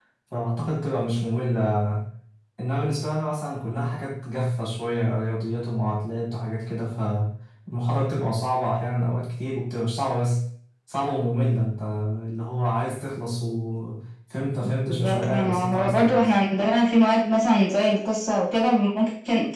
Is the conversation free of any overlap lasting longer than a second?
No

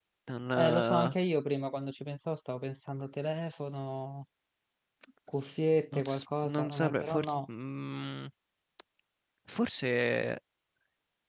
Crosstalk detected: Yes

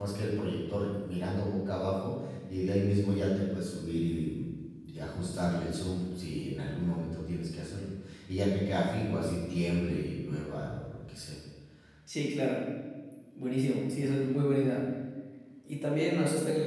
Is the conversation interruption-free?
Yes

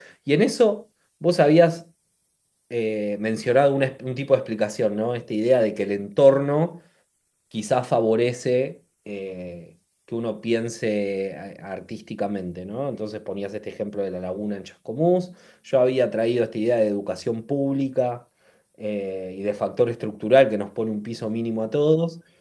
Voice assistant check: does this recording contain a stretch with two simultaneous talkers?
No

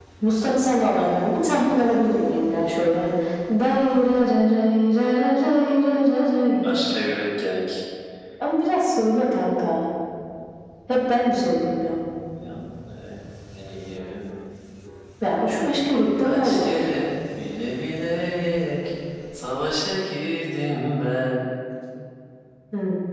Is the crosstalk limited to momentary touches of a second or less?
Yes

